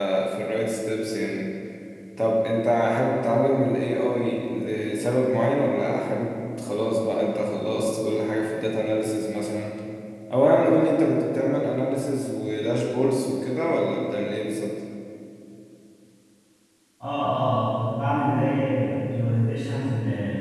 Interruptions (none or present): none